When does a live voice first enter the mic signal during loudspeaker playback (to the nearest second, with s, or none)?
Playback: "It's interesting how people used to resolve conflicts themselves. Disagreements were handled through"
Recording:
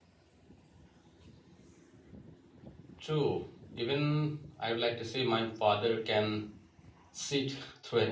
3 s